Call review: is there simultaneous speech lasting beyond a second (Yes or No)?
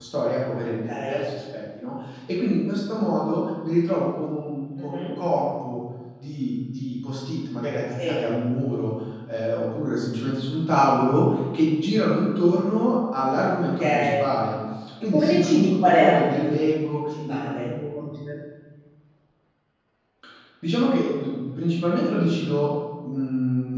Yes